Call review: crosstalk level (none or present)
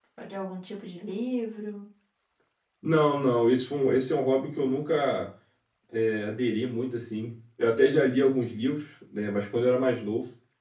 none